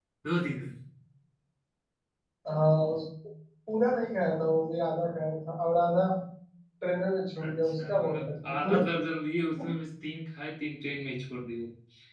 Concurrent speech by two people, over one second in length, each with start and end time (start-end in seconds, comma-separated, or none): 7.4-8.8